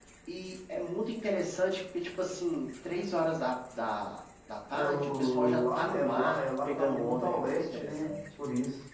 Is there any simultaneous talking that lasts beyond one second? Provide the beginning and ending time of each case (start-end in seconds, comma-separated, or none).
4.7-8.1